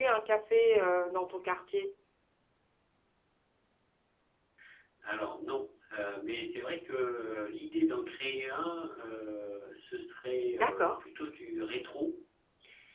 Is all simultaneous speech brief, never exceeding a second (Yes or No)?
Yes